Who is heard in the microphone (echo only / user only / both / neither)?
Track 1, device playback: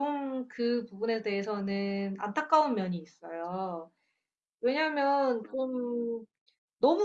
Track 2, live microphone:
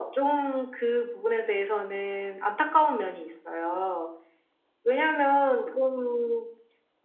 echo only